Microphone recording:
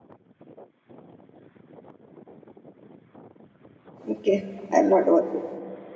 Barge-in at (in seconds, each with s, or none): 4.1 s